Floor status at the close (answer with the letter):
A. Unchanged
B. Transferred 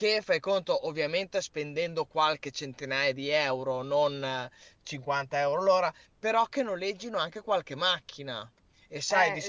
B